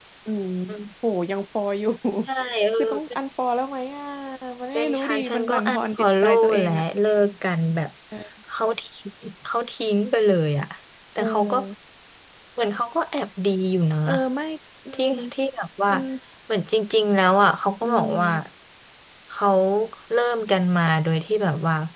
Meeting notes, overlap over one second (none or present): present